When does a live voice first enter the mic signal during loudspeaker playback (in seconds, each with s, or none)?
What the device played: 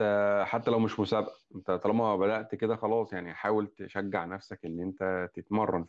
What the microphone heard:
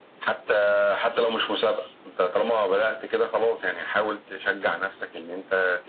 none